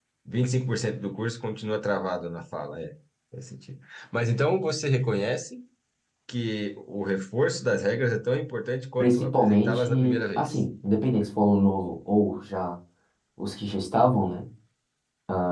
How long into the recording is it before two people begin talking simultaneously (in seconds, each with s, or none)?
9.0 s